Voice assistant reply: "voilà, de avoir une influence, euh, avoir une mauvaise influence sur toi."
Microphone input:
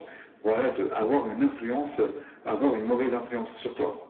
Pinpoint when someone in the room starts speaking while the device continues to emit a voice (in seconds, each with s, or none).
none